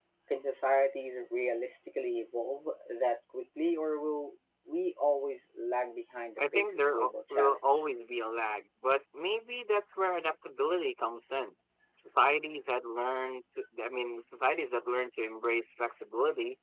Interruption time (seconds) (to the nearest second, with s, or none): 6 s